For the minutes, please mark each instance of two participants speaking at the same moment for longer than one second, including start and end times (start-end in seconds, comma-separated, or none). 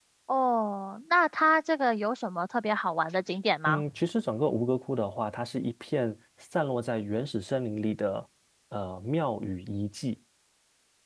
none